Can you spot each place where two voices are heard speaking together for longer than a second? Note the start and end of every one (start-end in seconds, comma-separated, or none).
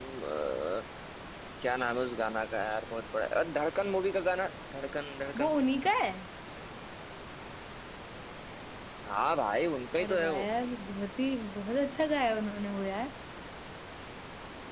none